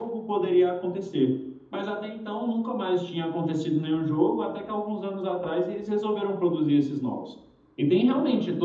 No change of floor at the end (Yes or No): Yes